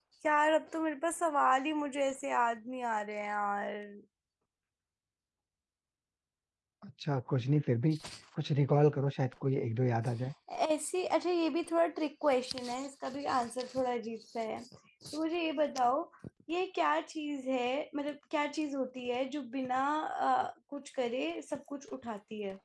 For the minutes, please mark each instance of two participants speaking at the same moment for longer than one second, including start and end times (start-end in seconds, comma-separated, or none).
none